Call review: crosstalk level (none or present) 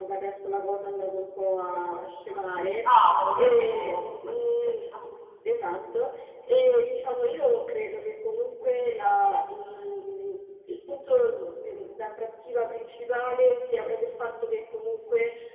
present